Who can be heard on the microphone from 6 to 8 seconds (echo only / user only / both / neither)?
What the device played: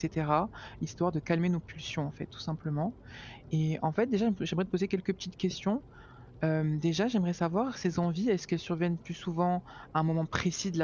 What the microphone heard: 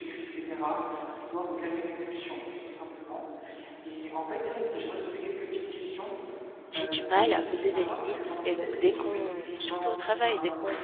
both